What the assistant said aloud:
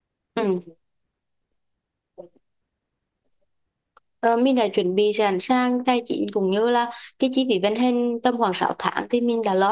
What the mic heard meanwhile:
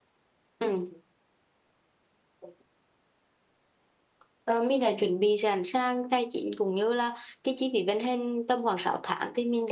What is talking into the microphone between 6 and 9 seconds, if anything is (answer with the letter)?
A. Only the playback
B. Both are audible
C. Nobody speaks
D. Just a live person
A